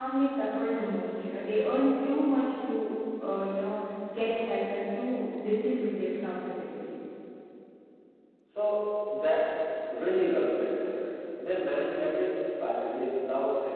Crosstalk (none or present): none